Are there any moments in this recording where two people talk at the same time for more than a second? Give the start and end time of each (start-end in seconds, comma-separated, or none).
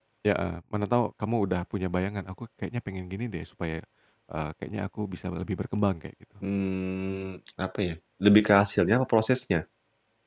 none